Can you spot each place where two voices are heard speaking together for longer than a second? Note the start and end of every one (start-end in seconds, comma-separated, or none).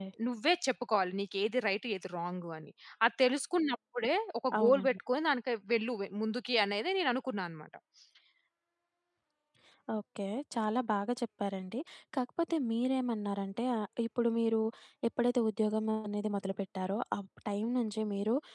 none